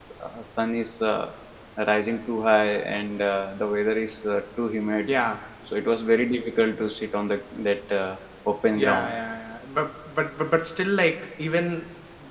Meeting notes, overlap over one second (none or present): none